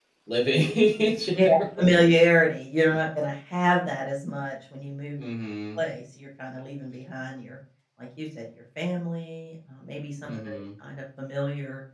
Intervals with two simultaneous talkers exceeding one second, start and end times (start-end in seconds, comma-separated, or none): none